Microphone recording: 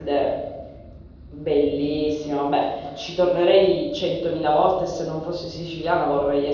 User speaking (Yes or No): Yes